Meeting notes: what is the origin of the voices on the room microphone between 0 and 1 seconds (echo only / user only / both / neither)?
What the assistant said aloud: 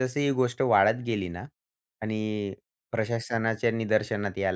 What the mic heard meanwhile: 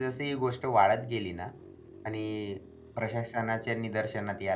echo only